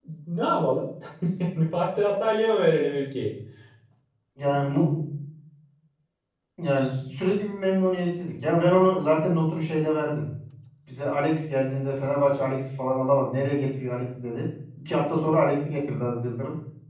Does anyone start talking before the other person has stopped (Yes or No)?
No